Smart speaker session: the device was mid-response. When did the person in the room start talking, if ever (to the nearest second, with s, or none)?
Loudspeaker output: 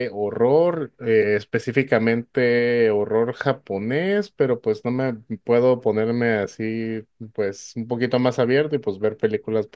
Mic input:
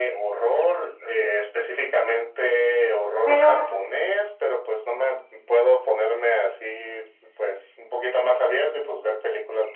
3 s